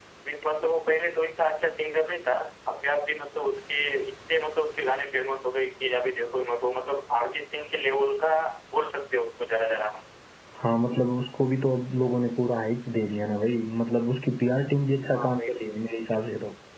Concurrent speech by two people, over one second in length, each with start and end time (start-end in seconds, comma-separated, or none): none